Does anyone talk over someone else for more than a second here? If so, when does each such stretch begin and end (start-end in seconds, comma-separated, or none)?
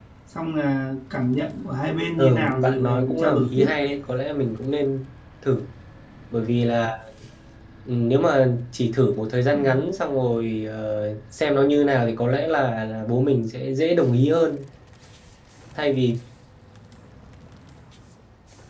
2.2-3.7